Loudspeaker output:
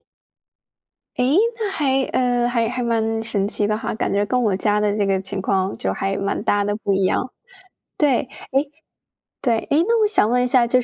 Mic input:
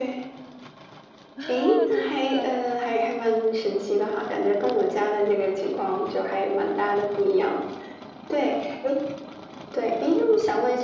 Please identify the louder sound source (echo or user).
echo